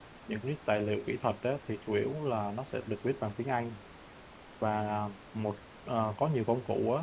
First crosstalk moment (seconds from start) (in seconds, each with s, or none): none